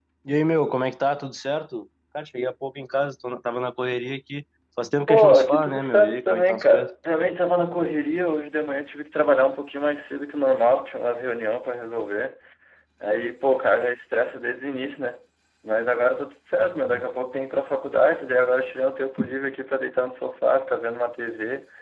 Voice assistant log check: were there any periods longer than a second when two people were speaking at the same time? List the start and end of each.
5.1-6.9

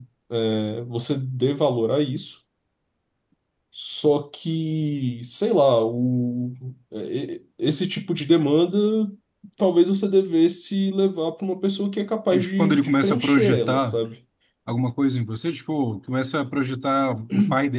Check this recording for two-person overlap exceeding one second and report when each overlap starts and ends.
12.3-14.0

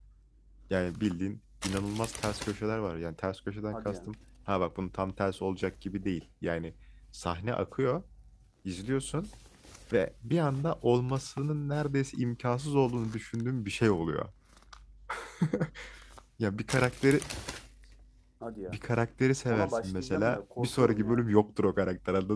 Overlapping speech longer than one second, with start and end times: 19.5-21.2

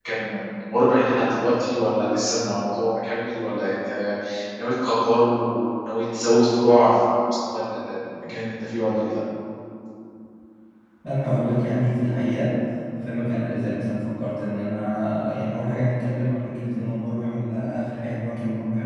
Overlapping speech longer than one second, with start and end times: none

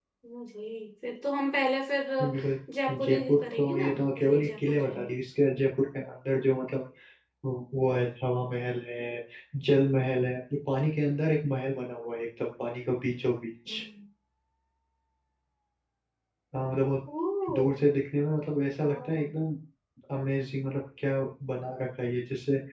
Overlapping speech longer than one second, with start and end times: 2.9-5.2

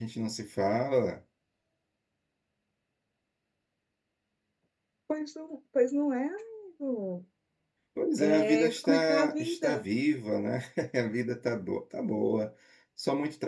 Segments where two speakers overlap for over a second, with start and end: 8.2-9.8

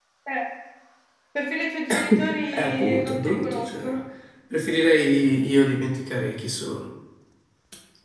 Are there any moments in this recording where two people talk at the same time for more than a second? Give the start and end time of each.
2.5-3.9

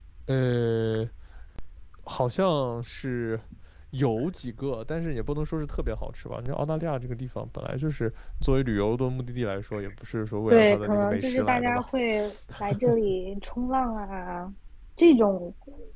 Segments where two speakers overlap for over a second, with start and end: 10.5-11.8

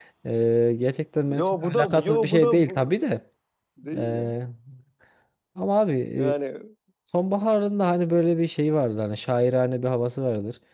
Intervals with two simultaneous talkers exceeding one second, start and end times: 1.4-3.0

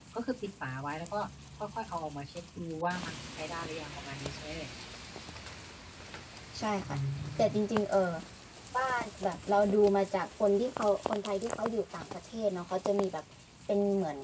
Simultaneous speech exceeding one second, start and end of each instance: none

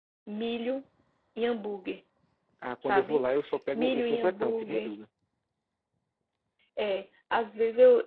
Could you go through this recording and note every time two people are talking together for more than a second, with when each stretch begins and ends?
3.7-5.0

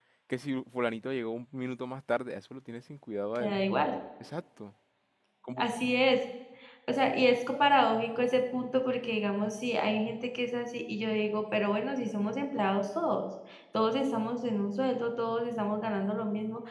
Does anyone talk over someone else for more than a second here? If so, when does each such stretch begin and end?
none

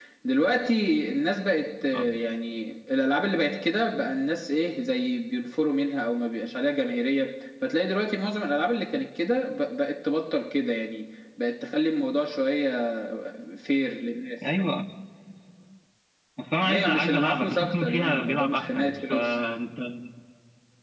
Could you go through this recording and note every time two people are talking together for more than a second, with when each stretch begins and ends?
16.6-19.3

